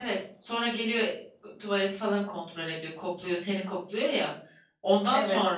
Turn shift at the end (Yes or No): No